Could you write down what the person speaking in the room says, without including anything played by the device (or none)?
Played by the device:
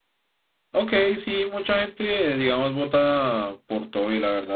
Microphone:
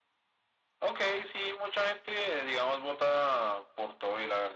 none